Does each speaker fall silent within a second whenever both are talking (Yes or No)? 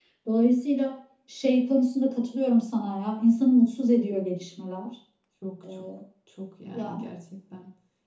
Yes